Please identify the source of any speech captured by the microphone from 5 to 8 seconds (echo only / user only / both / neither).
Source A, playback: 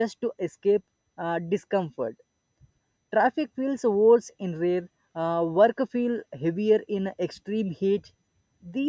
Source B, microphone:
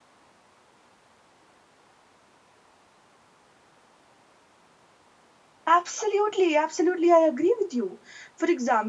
user only